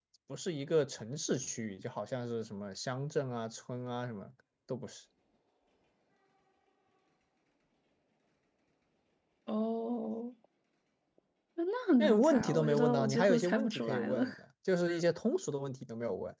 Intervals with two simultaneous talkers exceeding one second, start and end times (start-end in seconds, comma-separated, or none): 12.0-14.2